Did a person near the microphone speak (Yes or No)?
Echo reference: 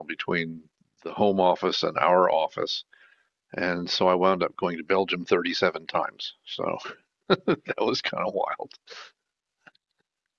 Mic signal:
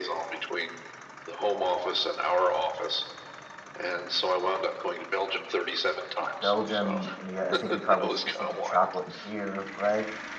Yes